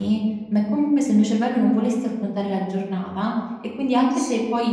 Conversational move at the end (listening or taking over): listening